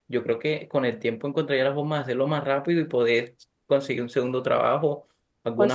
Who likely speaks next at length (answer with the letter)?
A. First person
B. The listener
A